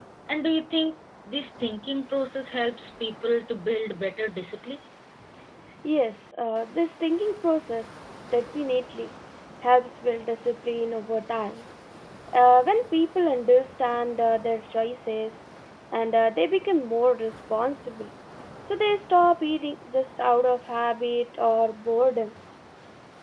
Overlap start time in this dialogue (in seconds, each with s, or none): none